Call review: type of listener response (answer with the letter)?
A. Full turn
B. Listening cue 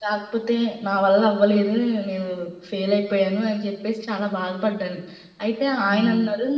B